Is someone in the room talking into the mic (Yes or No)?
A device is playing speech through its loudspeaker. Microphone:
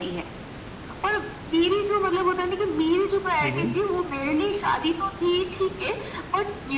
Yes